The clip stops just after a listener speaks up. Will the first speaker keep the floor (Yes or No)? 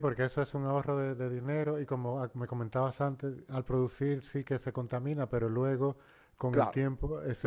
No